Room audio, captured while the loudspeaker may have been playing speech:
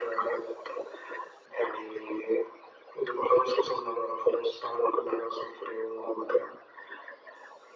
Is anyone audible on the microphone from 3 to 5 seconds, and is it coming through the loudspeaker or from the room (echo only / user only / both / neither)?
echo only